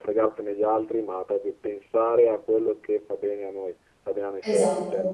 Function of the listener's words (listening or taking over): listening